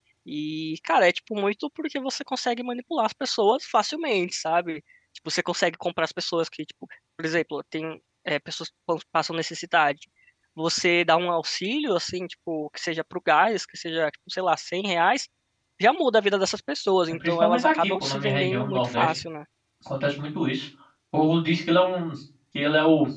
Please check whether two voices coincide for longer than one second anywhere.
Yes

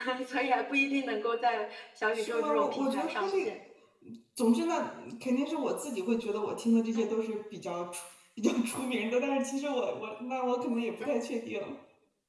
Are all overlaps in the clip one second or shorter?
No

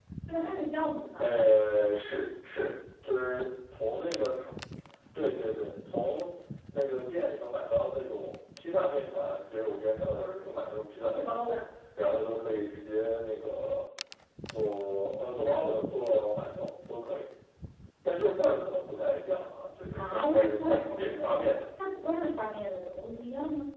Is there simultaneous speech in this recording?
Yes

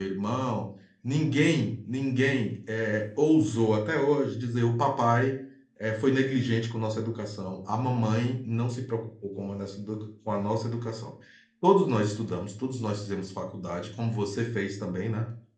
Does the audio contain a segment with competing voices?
No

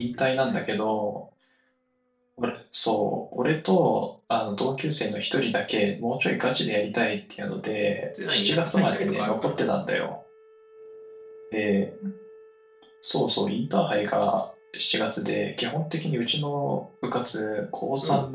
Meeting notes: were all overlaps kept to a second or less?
No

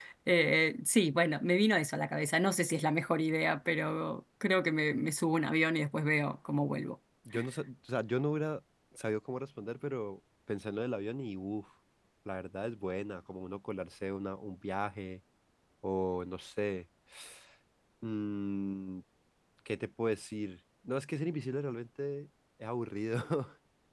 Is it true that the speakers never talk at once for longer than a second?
Yes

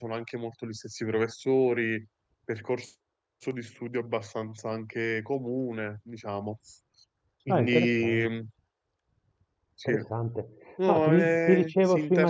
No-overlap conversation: No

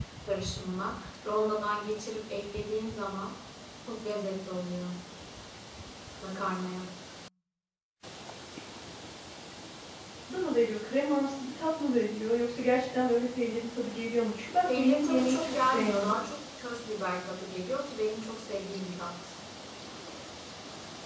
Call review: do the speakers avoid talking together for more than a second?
No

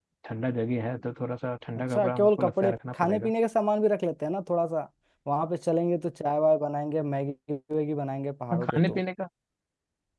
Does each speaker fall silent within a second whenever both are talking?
No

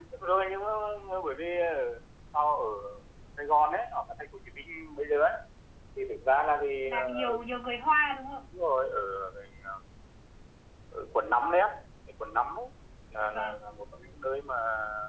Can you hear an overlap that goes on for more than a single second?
No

